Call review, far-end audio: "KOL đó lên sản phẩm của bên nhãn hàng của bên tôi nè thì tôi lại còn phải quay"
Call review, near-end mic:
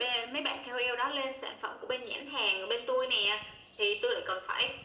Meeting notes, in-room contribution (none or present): none